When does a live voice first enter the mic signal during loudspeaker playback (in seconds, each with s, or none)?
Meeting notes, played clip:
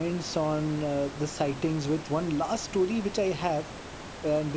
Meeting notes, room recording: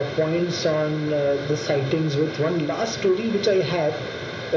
none